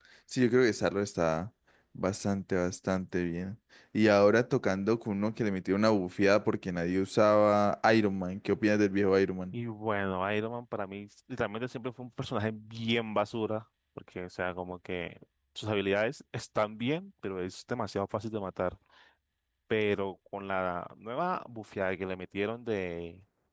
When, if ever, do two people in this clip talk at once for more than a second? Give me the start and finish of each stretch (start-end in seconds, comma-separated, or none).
none